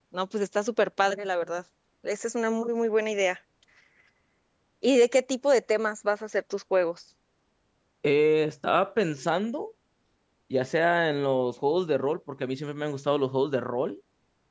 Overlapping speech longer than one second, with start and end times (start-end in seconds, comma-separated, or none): none